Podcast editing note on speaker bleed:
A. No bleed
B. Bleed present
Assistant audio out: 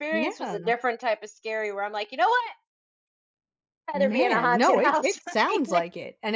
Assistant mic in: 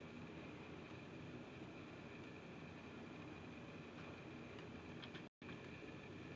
A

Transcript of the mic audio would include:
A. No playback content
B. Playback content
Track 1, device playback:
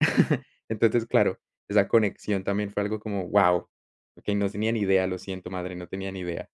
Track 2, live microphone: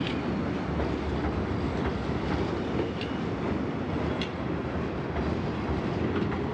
A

